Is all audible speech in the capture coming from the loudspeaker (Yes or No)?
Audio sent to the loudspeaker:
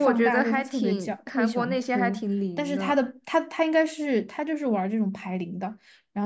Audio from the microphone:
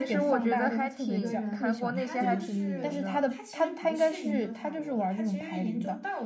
No